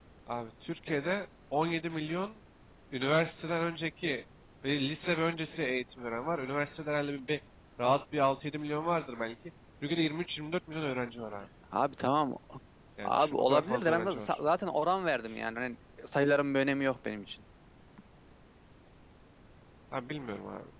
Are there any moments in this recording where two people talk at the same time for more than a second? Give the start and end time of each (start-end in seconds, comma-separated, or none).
13.0-14.4